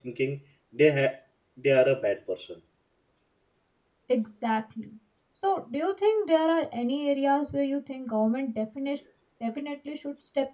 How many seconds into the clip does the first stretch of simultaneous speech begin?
none

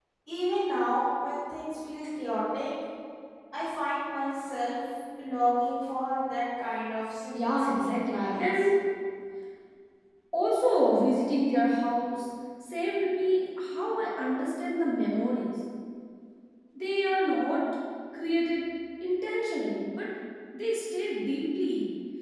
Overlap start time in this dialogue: 7.3 s

